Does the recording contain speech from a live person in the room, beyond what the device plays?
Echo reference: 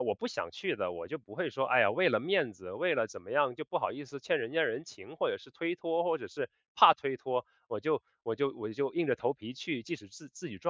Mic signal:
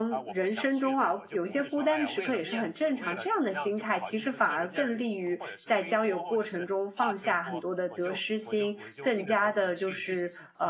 Yes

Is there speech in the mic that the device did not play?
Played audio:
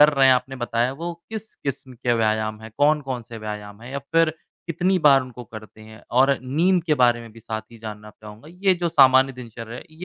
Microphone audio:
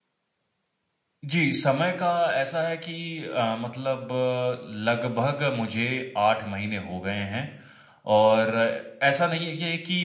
Yes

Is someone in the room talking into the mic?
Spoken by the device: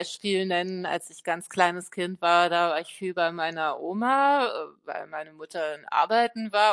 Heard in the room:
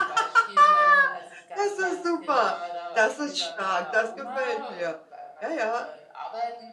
Yes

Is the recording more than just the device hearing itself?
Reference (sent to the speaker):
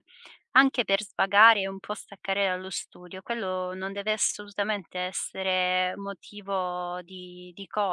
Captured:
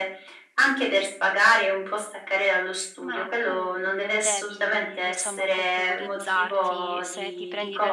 Yes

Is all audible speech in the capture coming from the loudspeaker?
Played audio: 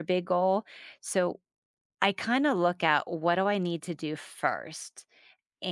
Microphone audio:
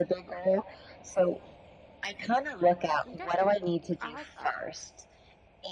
No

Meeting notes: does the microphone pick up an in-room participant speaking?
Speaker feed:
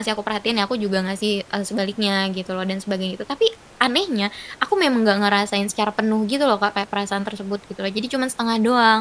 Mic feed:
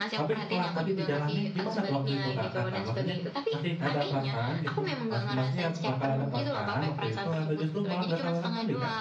Yes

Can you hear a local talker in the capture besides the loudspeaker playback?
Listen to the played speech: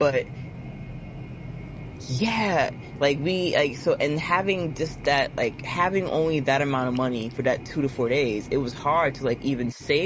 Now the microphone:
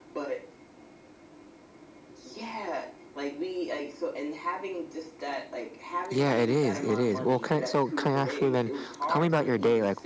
Yes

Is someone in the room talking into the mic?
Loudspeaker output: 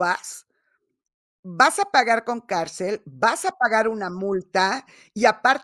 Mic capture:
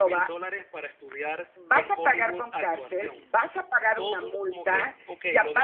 Yes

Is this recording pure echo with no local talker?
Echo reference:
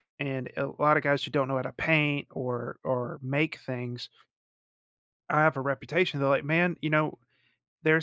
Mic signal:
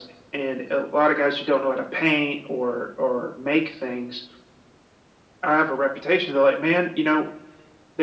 Yes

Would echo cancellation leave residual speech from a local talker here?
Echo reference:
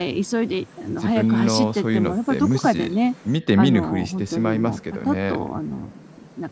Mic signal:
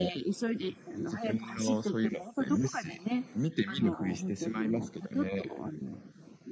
No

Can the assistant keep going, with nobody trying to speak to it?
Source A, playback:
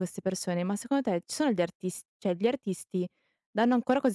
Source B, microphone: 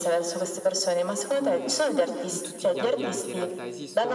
No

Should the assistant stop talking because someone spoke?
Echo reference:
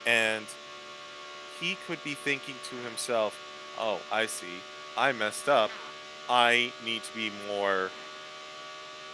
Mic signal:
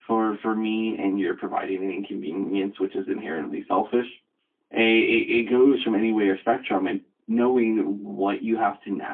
Yes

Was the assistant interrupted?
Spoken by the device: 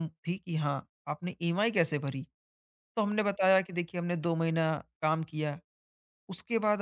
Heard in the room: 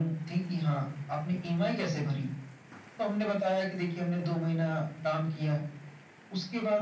No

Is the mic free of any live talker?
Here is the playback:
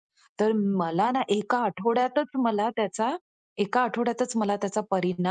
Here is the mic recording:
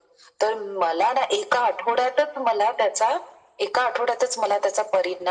Yes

